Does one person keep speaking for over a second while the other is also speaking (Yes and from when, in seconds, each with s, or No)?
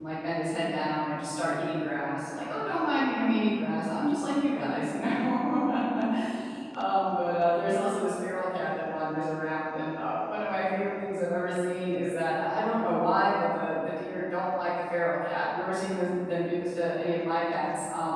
No